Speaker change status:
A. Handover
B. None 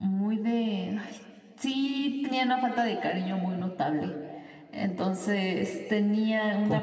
B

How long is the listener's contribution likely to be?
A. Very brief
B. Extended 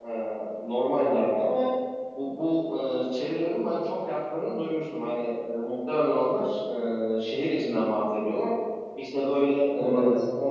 A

